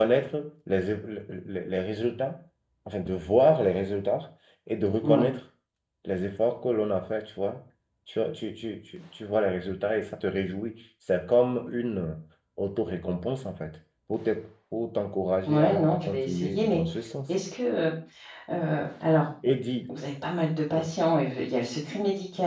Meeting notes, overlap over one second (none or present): present